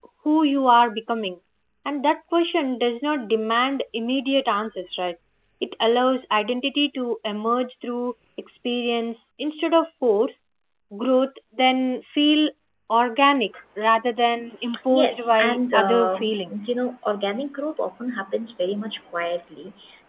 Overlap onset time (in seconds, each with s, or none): 14.6 s